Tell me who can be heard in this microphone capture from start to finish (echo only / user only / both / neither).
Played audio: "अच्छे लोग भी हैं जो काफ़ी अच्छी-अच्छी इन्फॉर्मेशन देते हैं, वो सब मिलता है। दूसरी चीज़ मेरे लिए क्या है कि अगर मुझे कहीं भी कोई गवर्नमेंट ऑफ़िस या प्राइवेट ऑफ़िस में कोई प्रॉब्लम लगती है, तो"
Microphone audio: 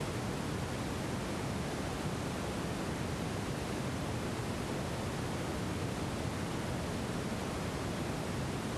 neither